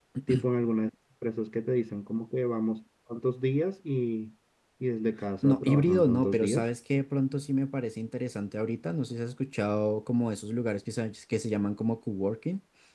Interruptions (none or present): present